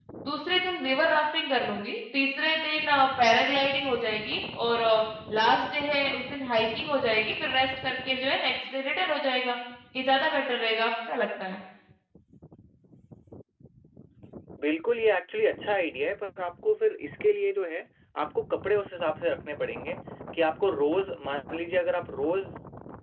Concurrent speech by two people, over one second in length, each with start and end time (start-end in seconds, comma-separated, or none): none